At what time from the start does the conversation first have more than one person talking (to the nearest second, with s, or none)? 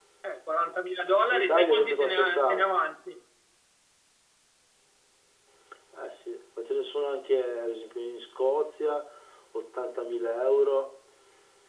1 s